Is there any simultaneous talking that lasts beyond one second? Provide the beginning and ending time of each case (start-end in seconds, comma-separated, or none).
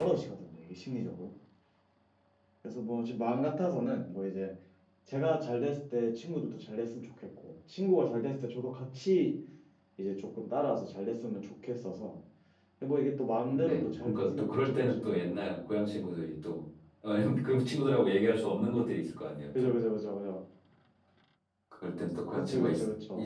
13.5-15.1